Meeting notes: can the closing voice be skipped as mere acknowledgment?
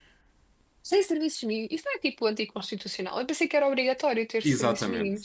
No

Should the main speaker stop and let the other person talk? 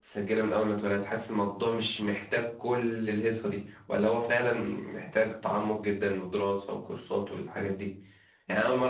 No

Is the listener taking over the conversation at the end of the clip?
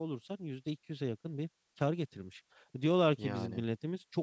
No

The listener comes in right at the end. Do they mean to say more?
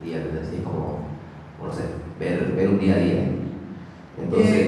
Yes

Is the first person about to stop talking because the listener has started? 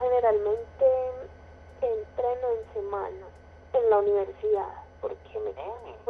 No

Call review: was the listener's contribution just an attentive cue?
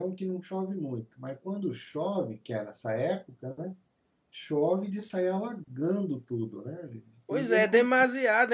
No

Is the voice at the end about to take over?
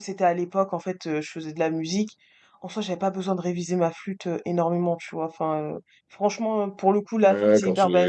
Yes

